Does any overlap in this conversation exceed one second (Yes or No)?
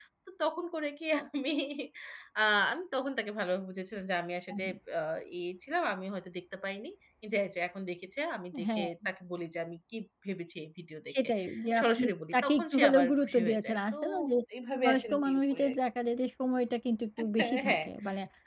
Yes